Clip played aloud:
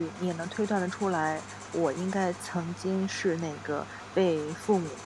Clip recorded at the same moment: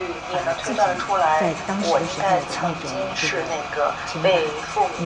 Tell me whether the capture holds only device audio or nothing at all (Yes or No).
No